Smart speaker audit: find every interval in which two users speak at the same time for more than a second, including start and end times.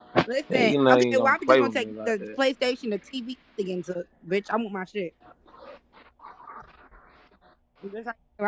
0.5-2.2

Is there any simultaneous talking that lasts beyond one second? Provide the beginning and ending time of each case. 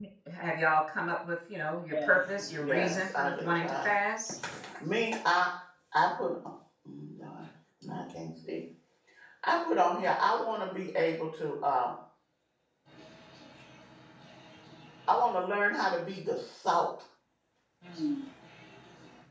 1.9-3.9

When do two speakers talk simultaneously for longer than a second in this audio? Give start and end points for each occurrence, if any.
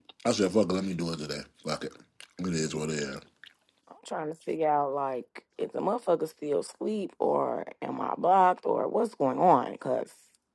none

